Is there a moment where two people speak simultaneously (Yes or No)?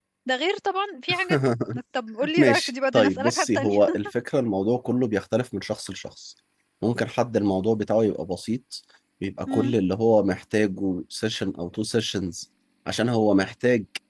Yes